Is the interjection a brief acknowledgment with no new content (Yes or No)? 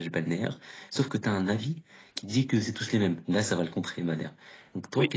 No